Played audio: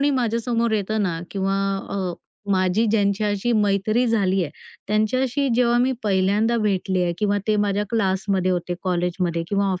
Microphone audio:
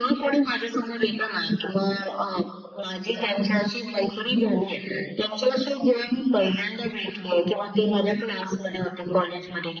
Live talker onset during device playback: none

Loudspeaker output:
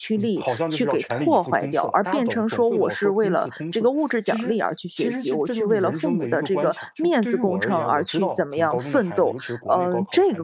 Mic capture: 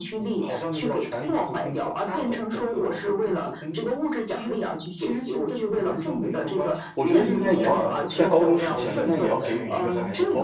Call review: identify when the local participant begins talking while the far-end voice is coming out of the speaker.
6.9 s

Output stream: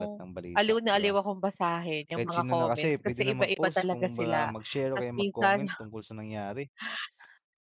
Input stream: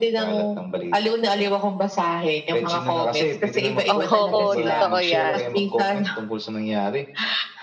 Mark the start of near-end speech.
3.9 s

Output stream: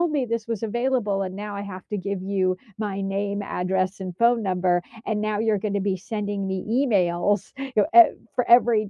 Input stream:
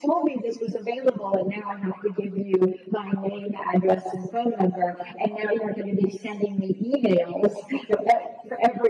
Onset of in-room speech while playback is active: none

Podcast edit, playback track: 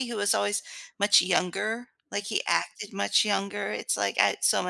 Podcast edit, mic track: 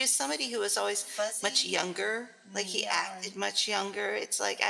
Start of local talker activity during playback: 0.9 s

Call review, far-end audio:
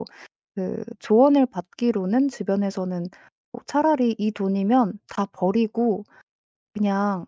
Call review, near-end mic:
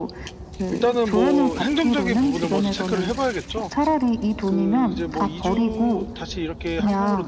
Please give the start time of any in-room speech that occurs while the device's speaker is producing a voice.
0.7 s

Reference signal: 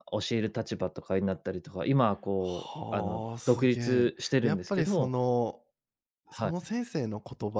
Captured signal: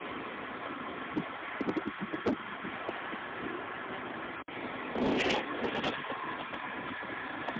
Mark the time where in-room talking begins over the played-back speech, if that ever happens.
none

